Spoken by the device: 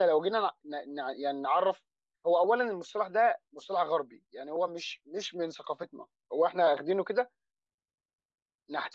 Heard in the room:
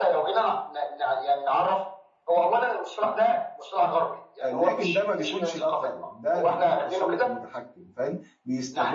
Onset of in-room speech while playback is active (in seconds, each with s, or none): 4.4 s